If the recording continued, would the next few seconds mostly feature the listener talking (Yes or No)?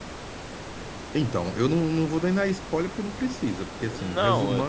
Yes